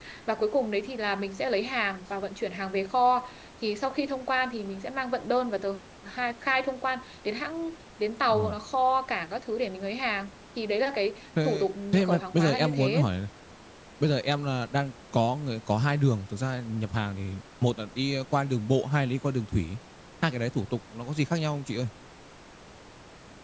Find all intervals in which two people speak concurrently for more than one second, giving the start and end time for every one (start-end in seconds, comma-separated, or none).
11.4-13.1